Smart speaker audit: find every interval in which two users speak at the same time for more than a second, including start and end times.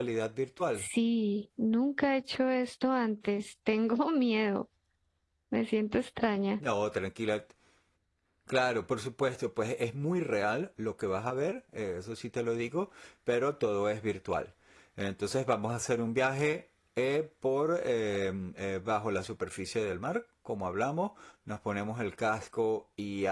none

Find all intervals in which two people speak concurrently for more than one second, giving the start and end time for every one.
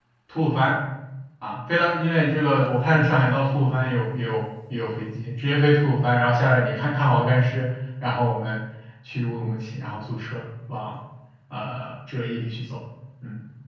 none

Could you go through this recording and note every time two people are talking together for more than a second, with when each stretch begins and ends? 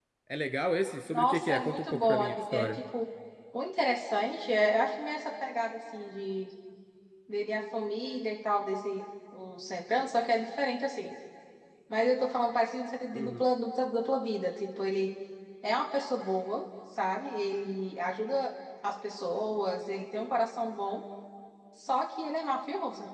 1.1-2.7

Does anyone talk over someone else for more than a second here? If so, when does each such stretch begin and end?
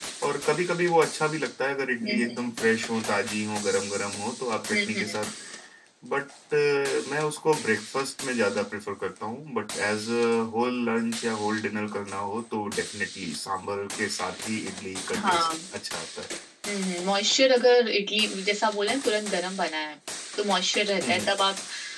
none

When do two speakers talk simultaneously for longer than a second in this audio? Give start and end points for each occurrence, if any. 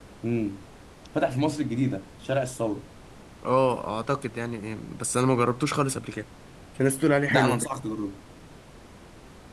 none

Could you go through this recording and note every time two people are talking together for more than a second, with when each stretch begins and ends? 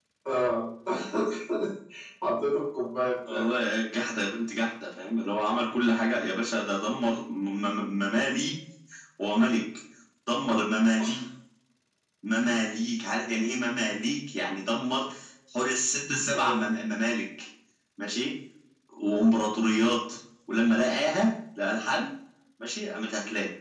none

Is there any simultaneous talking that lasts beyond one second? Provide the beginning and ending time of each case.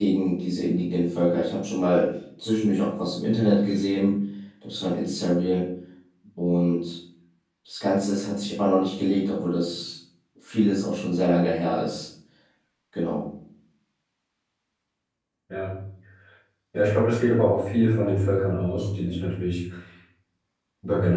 none

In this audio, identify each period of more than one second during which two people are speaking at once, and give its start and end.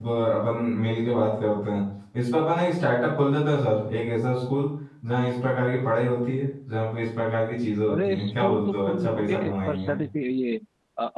7.9-9.9

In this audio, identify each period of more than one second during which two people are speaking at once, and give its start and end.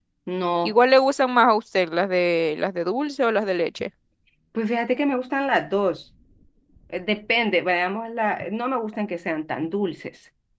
none

